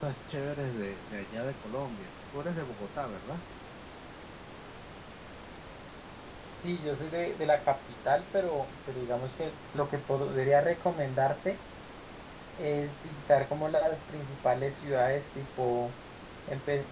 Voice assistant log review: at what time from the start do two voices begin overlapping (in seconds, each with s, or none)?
none